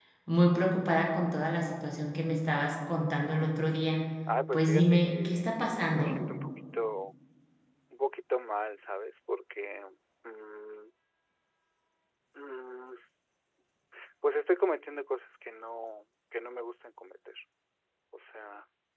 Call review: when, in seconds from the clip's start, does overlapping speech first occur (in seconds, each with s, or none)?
4.5 s